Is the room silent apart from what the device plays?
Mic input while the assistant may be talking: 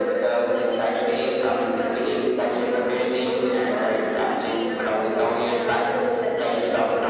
No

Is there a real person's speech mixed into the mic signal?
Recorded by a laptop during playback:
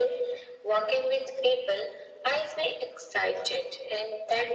No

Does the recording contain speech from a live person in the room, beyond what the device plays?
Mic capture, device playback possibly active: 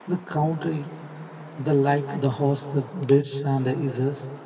Yes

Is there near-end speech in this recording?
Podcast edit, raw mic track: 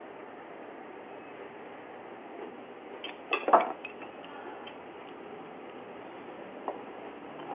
No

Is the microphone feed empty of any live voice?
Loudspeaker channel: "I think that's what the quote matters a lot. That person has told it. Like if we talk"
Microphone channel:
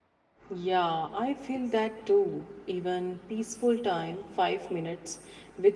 No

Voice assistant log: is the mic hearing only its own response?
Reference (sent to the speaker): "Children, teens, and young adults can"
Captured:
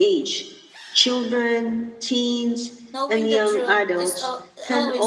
No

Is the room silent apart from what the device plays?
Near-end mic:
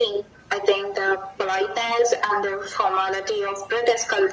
Yes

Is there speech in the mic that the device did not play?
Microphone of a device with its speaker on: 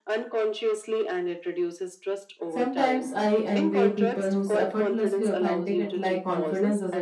Yes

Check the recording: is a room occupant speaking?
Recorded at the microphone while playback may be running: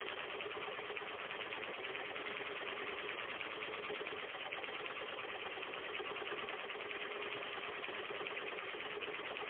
No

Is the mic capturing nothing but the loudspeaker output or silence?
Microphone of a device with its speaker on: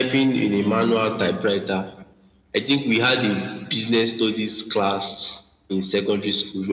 No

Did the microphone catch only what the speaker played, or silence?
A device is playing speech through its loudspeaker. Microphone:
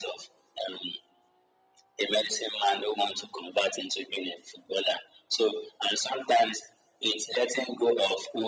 Yes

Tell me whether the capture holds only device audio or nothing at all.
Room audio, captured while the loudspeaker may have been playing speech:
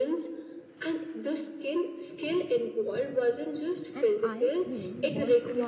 No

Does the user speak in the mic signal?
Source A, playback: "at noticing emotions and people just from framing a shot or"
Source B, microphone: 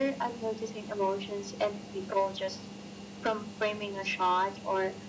No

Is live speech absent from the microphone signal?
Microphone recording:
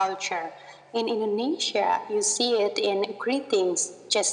Yes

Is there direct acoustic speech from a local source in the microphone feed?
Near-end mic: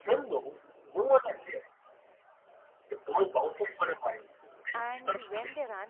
Yes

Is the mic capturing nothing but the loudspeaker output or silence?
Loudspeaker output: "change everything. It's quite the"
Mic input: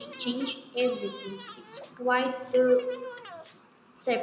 Yes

